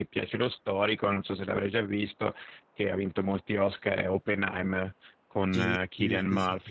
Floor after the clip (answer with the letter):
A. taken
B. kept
A